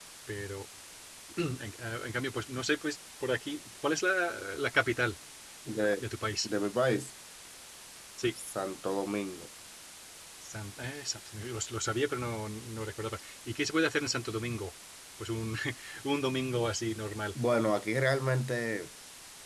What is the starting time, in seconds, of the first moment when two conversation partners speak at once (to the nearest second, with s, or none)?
none